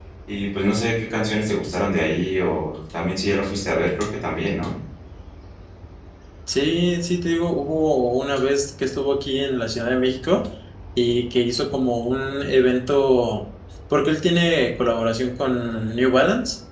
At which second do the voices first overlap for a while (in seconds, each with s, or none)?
none